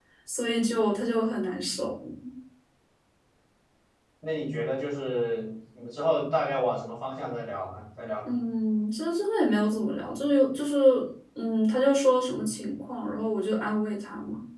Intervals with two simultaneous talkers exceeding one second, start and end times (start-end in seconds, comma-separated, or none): none